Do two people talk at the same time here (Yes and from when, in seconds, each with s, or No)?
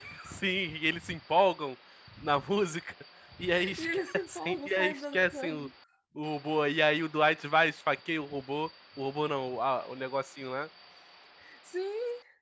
Yes, from 3.8 s